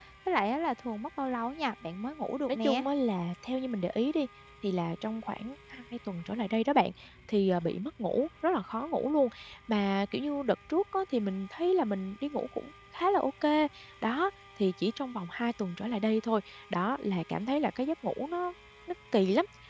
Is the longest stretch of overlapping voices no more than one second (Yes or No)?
Yes